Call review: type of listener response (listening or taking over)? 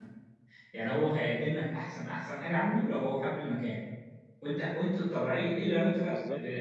listening